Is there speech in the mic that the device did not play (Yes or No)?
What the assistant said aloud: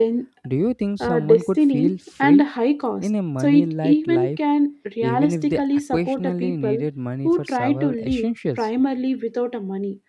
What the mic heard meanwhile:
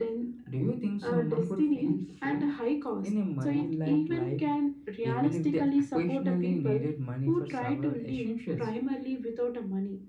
No